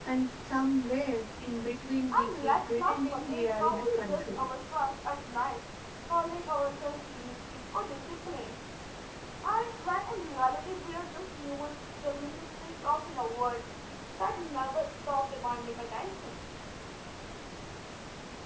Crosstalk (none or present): present